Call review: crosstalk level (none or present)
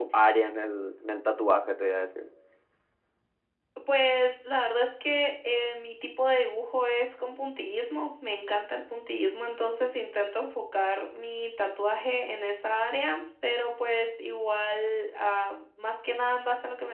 none